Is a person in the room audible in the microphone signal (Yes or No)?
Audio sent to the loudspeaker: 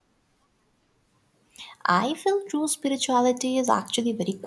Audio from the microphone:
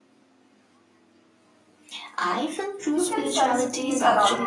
Yes